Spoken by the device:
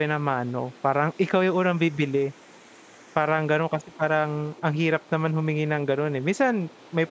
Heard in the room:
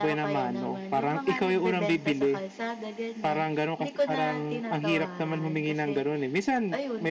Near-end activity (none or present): present